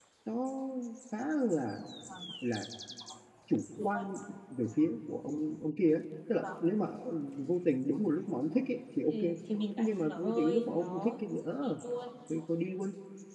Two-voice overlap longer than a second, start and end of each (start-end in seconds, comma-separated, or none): 9.8-11.1